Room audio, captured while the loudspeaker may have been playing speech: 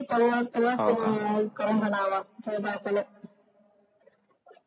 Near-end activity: present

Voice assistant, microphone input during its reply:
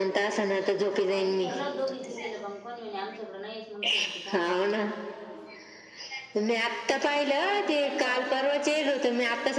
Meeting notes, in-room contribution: present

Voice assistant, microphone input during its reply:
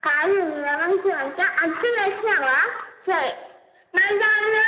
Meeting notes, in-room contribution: none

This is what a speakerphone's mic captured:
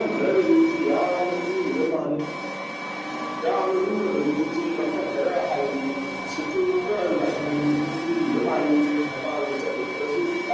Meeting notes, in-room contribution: none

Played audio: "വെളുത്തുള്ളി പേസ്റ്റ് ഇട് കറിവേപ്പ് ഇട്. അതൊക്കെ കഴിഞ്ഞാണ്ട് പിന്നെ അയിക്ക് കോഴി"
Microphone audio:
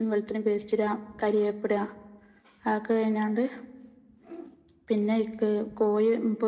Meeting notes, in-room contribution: none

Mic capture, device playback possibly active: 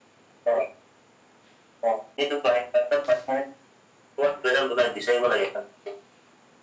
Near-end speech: none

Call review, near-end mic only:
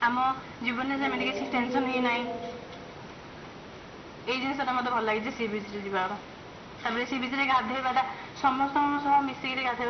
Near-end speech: present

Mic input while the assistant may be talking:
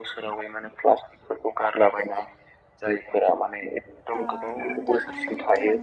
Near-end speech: present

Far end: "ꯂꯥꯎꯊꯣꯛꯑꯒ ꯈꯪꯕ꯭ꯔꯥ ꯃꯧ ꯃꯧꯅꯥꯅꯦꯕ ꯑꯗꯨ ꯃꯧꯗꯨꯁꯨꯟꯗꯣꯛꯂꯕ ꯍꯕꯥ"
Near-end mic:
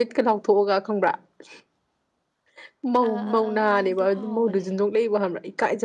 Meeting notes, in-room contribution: present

